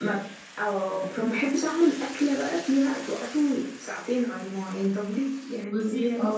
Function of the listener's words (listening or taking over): taking over